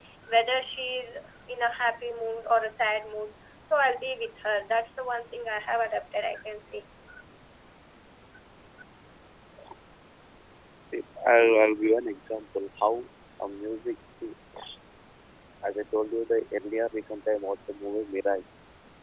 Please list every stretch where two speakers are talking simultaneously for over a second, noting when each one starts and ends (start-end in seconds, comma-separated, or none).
none